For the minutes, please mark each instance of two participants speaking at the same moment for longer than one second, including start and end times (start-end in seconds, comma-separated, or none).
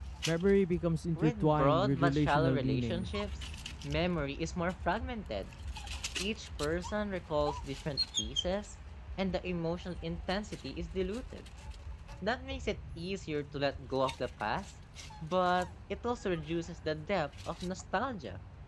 1.2-3.1